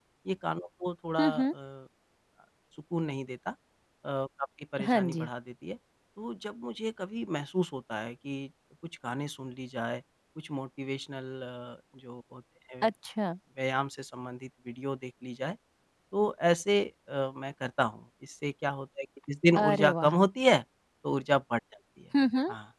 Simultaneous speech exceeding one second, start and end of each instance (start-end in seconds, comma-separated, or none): none